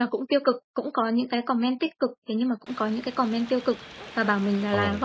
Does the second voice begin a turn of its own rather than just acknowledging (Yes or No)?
No